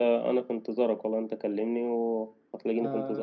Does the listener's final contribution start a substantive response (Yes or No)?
Yes